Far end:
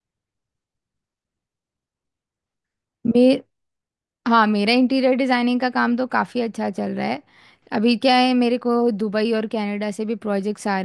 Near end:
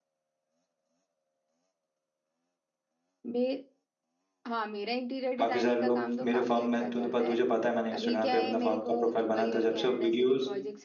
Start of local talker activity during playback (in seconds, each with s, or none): 5.4 s